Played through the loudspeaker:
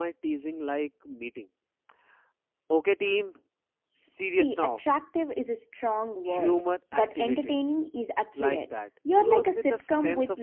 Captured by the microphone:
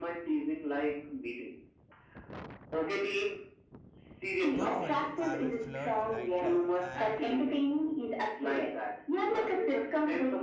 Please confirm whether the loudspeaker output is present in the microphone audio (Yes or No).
Yes